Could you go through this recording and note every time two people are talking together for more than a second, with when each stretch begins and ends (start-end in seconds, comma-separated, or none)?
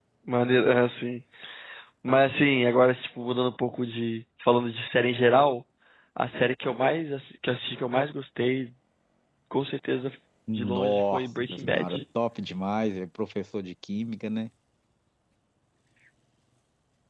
10.5-12.0